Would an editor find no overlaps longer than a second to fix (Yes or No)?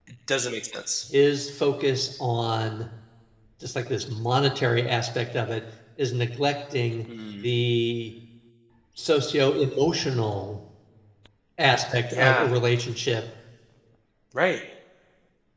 Yes